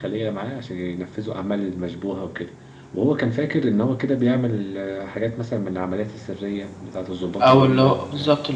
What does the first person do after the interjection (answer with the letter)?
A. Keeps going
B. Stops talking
B